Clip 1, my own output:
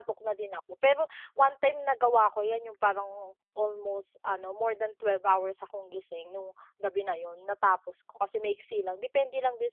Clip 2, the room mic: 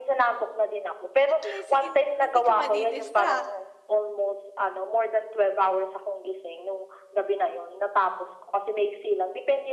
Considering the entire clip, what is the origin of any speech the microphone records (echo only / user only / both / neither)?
both